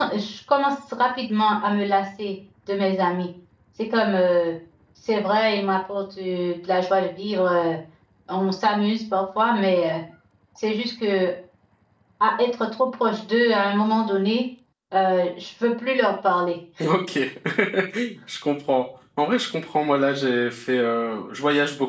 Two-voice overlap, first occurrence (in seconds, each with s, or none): none